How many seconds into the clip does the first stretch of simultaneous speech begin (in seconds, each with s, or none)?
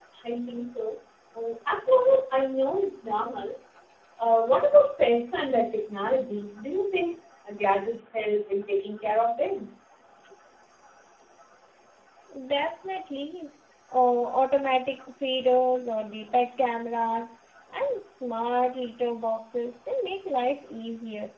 none